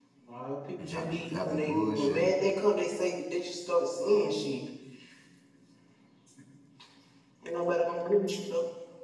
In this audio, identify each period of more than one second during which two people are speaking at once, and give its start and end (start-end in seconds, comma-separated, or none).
0.8-2.3